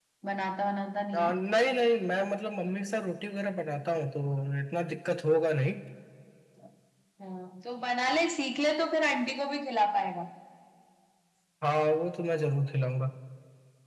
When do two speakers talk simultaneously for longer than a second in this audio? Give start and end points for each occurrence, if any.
none

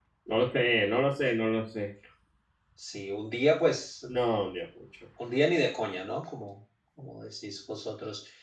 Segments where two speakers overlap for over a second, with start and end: none

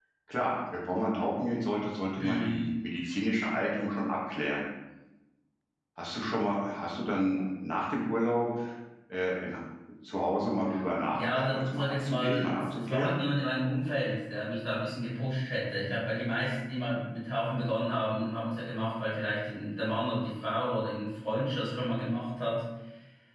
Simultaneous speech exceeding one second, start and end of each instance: 11.1-13.2

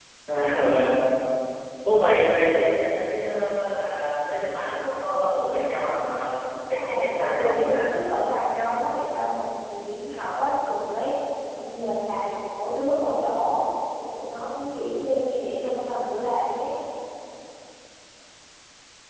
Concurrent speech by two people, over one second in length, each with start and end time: 6.7-7.9

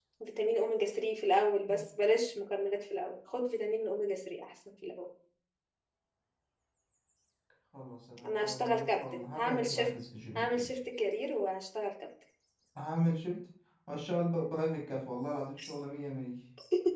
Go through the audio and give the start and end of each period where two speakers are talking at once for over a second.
8.2-9.9

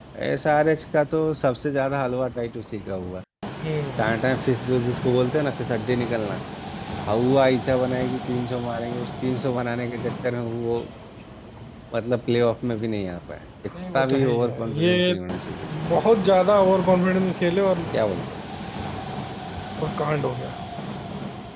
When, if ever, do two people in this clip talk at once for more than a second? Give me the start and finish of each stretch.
13.9-15.1

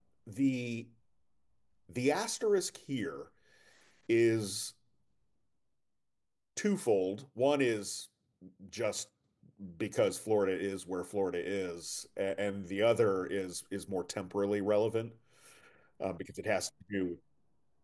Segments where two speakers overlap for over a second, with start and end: none

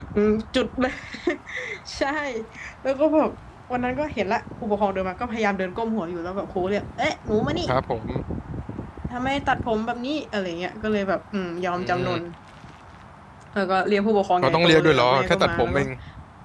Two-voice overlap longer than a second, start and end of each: 14.4-15.8

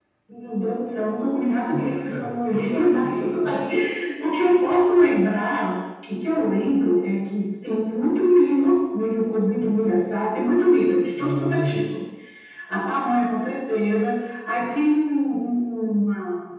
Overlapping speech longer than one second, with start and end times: 1.7-3.5

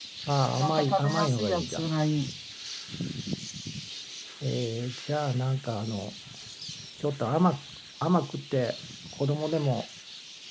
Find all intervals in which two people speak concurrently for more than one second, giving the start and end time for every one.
0.6-1.8

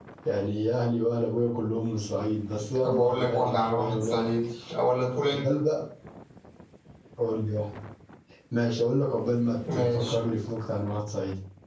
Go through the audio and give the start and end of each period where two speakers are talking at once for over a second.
2.8-4.2

